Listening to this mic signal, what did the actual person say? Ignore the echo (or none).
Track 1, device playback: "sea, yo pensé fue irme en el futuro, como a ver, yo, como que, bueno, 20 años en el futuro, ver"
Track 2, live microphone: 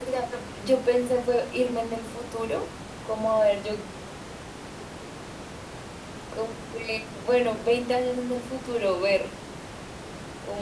none